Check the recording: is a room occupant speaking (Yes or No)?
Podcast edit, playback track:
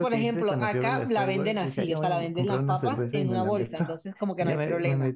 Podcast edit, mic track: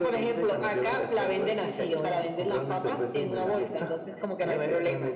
No